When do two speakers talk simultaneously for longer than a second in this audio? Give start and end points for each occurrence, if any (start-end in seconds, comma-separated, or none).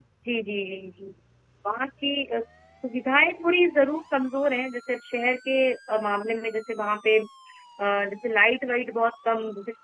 none